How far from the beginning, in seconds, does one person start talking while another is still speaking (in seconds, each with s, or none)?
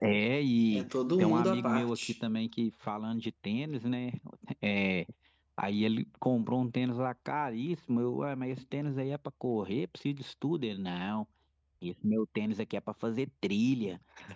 0.7 s